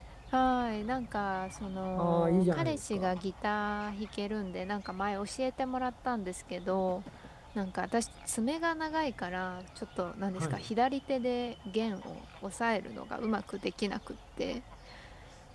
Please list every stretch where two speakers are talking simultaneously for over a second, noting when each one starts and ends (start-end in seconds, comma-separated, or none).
1.9-3.3